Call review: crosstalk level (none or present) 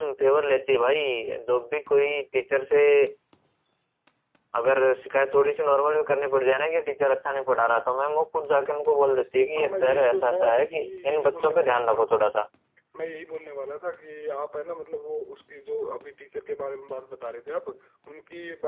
present